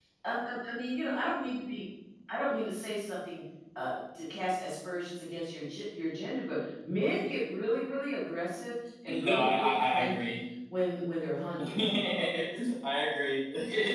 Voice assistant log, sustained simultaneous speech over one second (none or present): present